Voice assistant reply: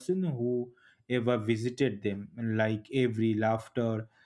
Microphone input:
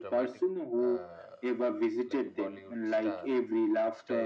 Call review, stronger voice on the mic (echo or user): echo